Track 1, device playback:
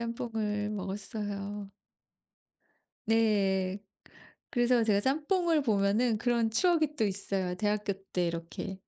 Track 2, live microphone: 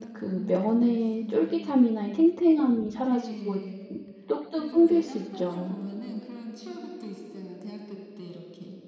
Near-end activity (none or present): present